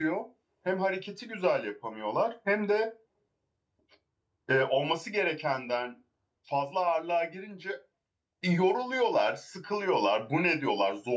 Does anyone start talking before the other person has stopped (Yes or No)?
No